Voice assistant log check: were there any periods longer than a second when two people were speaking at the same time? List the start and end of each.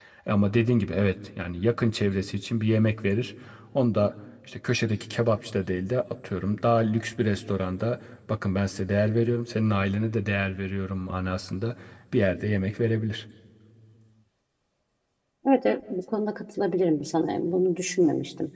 none

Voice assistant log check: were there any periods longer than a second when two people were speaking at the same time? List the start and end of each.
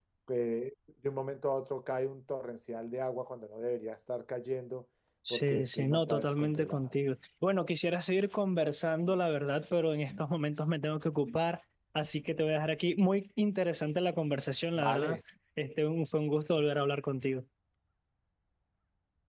5.3-6.9

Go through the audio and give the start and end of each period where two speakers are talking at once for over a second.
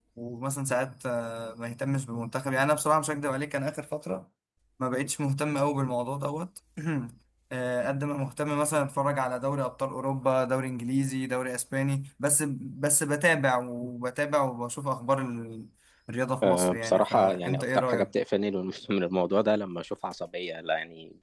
16.4-18.1

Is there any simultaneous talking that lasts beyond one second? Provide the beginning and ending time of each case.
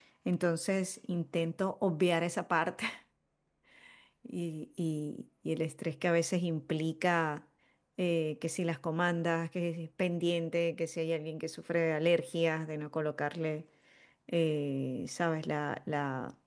none

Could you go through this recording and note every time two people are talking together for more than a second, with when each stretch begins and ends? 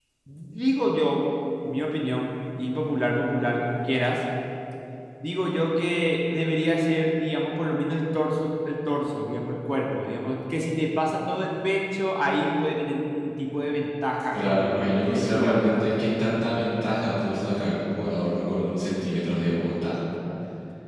14.3-16.0

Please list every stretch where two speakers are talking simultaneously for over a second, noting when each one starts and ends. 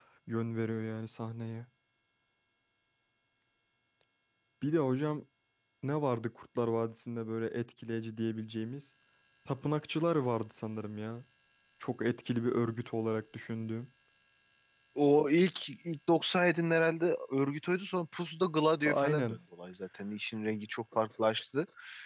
none

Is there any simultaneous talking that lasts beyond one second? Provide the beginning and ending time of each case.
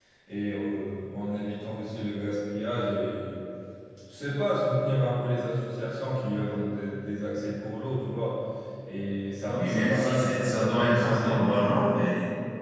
9.5-11.4

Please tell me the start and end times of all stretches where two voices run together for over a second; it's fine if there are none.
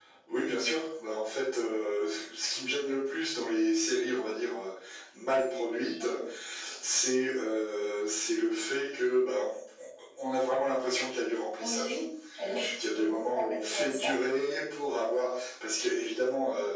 12.9-14.2

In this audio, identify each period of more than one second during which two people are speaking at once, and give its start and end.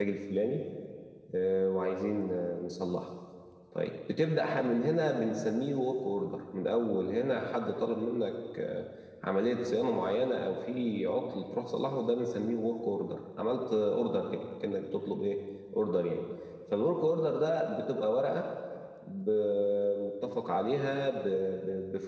none

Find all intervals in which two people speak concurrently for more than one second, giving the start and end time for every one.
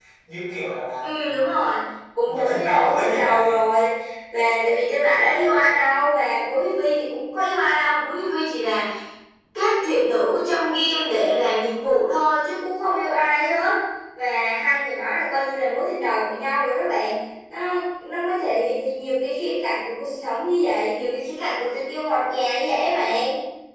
2.3-3.5

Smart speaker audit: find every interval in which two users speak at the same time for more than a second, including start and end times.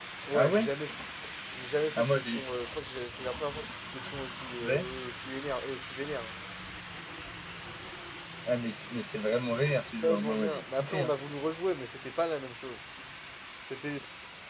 9.7-11.1

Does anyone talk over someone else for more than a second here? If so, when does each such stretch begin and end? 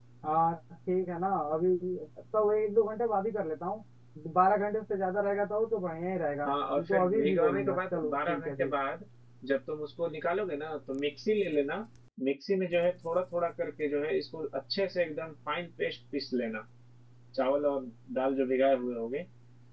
6.5-8.7

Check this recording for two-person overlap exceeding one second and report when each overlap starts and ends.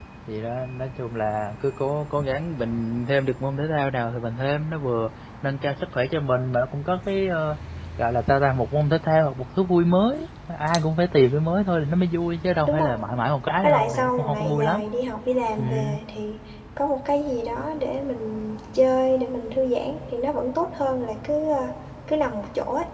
13.6-14.8

